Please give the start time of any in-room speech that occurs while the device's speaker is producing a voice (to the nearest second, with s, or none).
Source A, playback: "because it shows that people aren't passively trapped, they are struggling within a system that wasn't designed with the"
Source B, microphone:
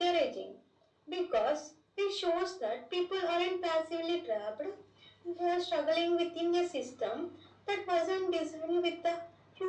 none